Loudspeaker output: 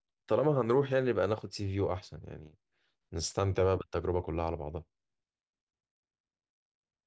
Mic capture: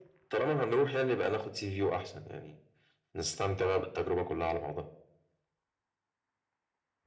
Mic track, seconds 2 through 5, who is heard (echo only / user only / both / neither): echo only